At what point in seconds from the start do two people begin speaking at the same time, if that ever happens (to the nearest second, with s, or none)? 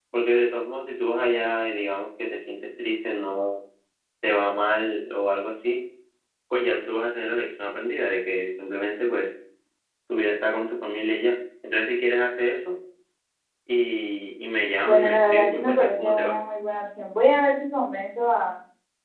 15 s